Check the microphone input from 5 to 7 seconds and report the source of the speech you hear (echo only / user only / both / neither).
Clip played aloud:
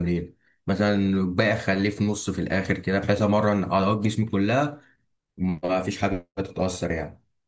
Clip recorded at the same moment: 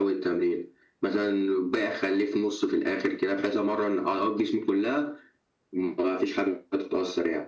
echo only